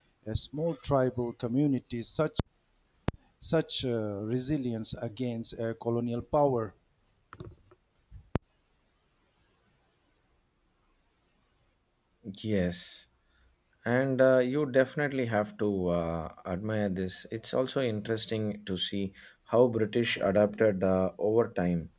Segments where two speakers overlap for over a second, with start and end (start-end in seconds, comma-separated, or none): none